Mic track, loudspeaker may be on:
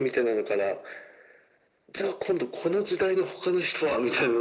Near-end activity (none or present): none